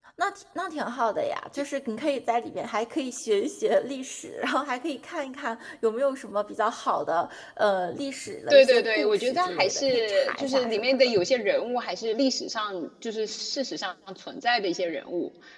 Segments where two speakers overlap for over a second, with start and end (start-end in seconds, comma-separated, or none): 8.5-11.1